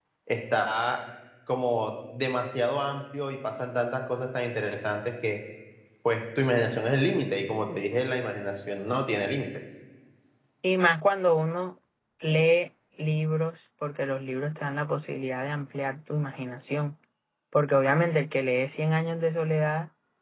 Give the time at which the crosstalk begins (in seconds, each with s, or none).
none